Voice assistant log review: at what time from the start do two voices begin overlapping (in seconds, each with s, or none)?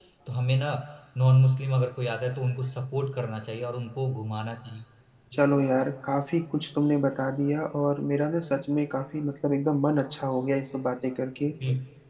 none